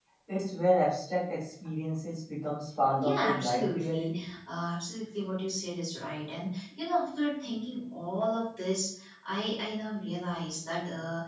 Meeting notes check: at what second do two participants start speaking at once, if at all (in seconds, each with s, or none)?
3.0 s